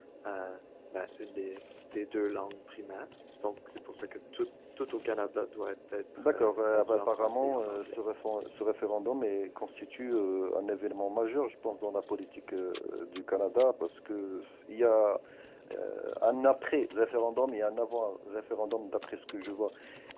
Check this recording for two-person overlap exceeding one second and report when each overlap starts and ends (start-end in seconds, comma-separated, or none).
6.2-8.0